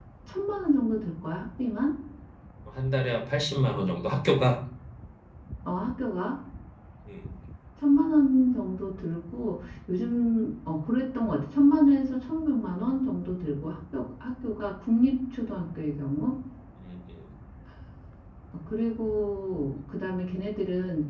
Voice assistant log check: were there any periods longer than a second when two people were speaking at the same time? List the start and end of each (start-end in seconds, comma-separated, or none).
none